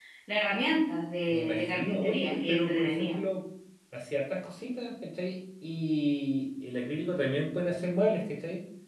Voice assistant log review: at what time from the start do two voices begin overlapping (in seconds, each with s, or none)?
1.3 s